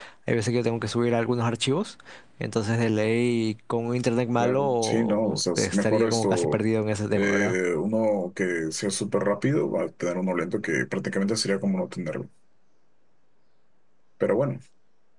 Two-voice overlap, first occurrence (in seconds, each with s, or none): 4.4 s